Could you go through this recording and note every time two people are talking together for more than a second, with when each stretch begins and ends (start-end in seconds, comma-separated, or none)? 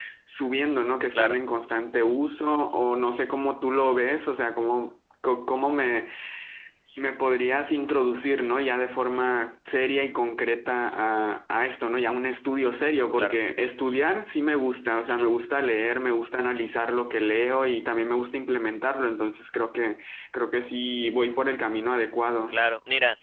none